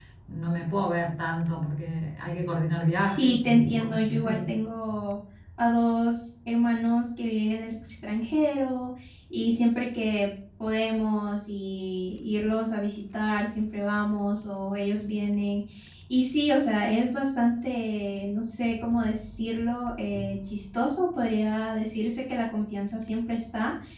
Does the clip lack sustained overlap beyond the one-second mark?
No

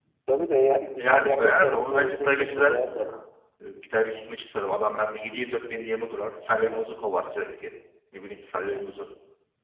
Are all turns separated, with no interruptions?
No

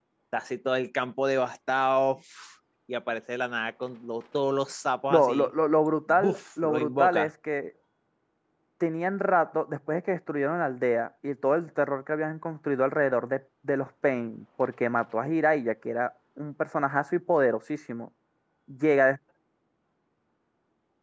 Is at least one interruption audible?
Yes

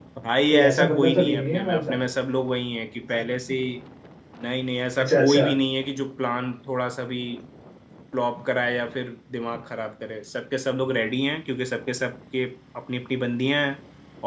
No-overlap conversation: No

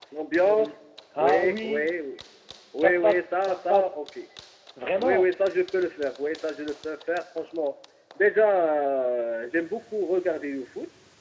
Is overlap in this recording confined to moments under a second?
No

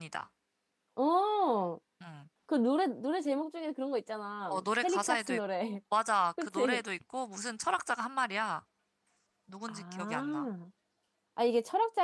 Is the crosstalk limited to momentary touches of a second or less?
No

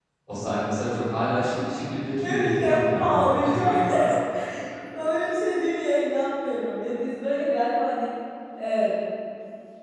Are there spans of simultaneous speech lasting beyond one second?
Yes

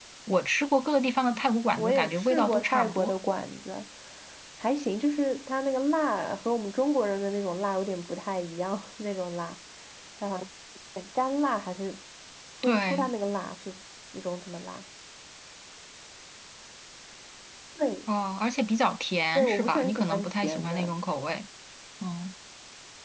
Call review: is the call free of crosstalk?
No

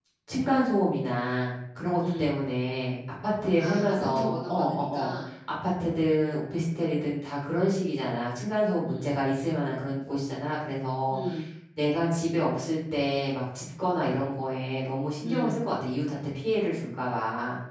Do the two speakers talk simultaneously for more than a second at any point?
Yes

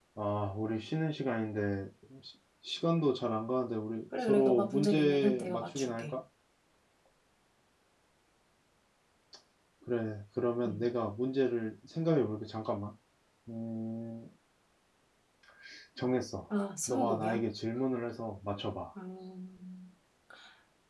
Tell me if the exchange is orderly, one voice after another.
No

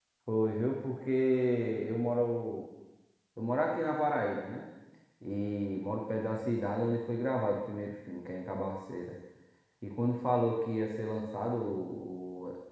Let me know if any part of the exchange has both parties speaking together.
No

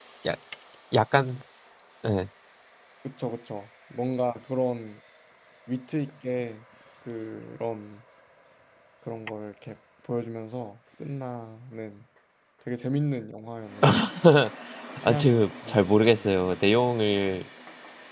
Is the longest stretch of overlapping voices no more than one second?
No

